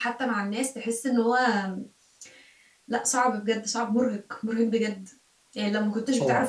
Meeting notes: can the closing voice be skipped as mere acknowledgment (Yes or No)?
Yes